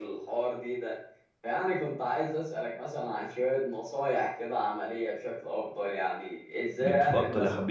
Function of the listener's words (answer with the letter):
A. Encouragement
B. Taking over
B